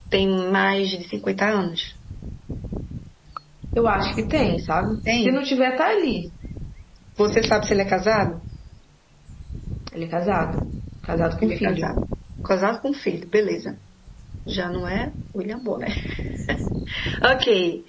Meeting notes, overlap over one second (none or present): none